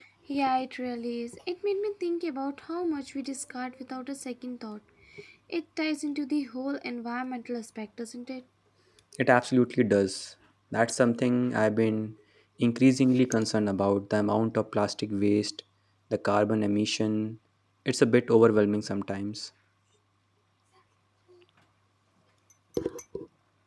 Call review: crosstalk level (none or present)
none